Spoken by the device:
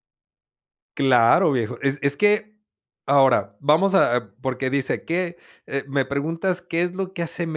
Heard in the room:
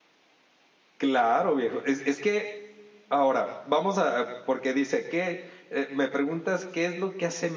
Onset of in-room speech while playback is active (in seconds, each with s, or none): none